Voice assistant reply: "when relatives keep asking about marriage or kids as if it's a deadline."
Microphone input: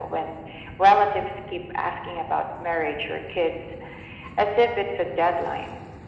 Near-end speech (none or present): none